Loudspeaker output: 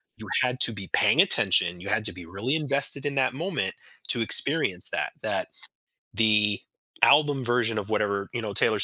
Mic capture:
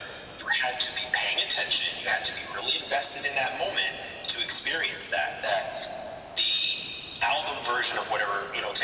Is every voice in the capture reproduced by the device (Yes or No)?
Yes